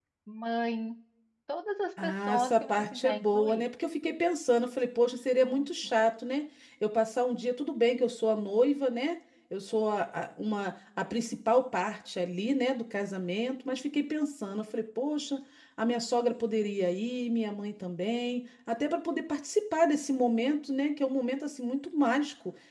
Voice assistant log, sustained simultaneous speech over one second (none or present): present